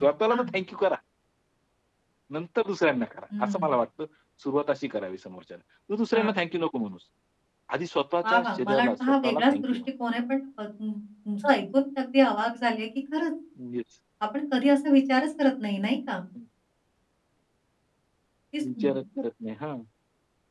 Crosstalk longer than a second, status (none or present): present